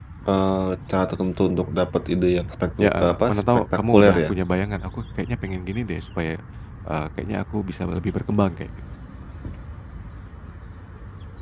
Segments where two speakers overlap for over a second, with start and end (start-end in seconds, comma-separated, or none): 2.8-4.3